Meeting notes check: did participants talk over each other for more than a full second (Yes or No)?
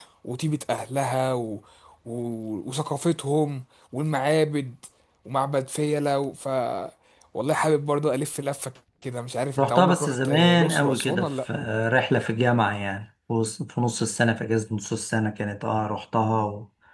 Yes